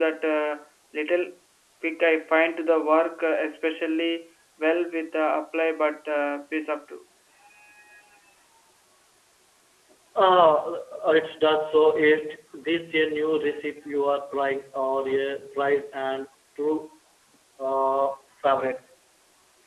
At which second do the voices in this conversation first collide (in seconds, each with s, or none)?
none